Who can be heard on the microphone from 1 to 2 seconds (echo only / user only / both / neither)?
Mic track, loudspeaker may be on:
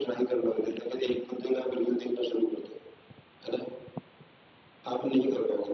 echo only